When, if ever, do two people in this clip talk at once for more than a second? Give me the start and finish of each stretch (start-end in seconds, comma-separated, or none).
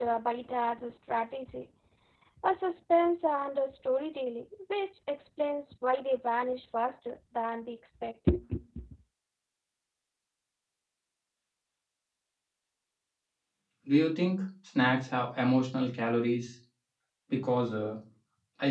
none